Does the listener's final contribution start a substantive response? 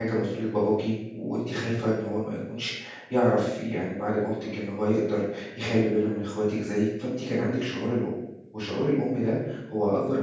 No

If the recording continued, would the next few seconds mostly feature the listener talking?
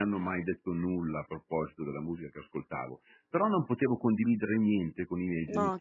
No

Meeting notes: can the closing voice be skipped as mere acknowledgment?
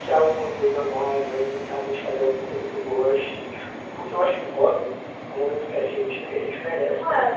No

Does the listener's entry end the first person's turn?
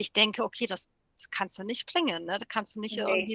No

